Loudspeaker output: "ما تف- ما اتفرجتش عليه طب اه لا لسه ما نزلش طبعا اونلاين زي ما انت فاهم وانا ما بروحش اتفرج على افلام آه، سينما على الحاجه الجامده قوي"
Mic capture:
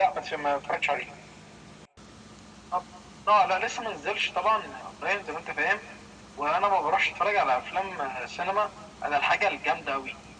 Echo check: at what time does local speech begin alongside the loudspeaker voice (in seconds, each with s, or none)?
none